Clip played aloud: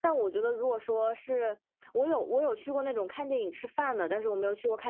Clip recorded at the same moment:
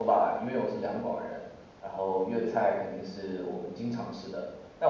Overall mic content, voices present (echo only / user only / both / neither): user only